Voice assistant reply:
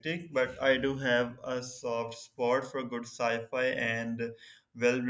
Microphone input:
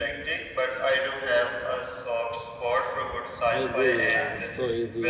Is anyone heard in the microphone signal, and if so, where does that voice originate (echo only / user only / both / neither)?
both